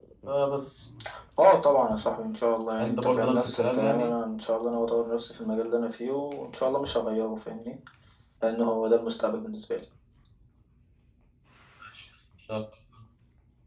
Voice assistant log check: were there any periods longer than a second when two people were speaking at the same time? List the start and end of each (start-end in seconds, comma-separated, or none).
2.8-4.1